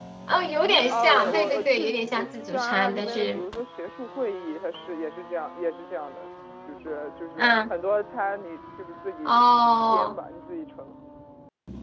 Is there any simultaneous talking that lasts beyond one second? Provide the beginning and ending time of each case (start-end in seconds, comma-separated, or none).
0.9-3.4